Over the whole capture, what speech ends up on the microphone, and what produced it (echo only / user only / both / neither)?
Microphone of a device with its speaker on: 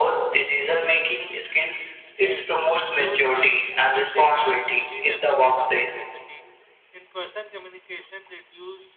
both